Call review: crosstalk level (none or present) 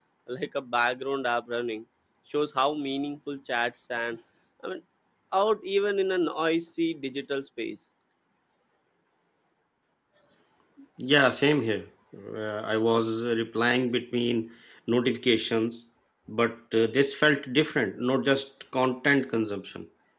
none